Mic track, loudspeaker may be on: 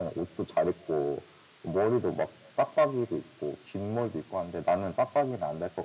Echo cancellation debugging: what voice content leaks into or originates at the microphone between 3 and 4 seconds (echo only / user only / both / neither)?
echo only